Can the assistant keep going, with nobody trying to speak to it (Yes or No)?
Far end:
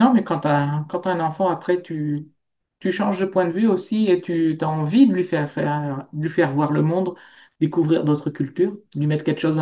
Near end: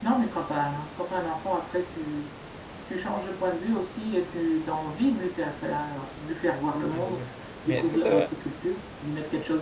No